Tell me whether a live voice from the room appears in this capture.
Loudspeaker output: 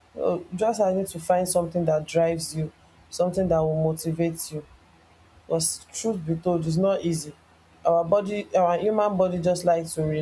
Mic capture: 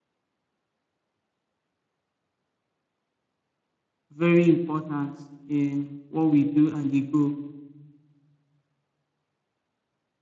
Yes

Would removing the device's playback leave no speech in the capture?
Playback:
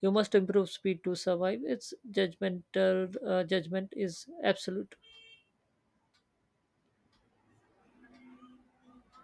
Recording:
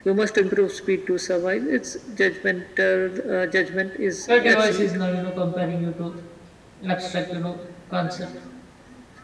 No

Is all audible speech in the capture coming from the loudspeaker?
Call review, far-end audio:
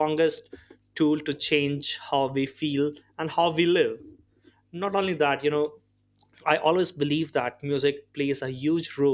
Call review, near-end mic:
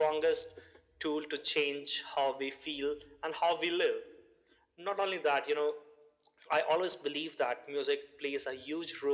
Yes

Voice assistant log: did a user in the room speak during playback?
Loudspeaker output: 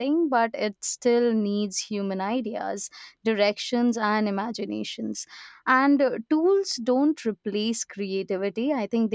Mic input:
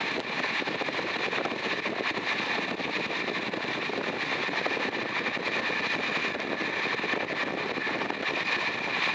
No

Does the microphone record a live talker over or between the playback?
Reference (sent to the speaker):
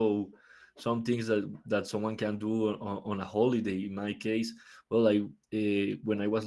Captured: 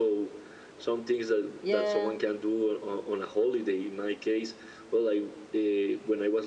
Yes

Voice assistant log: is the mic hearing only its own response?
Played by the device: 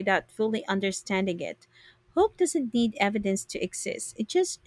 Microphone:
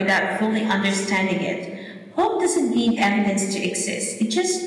Yes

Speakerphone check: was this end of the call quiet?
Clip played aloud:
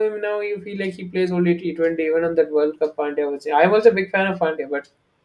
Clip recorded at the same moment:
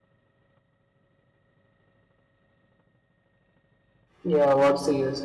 No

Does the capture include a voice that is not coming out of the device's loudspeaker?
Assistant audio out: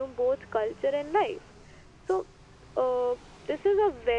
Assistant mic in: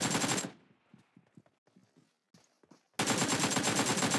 No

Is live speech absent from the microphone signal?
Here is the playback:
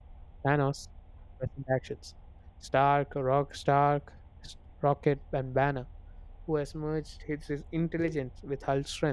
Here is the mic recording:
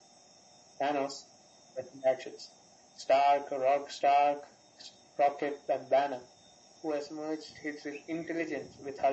Yes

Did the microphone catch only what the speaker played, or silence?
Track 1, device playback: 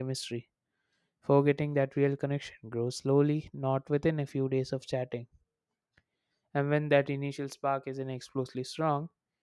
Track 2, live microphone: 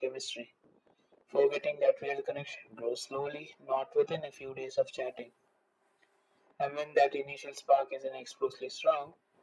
Yes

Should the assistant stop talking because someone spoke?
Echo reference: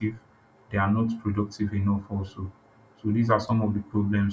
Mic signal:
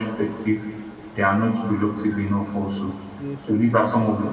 Yes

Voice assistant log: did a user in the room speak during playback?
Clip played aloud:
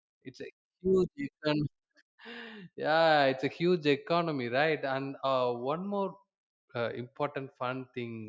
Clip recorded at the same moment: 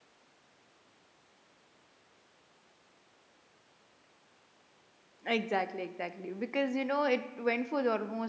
Yes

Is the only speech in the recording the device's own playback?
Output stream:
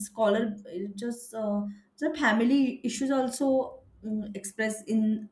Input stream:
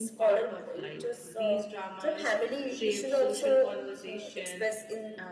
No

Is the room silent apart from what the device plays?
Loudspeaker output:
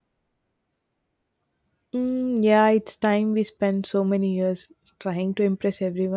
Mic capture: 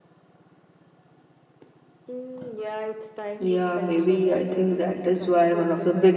No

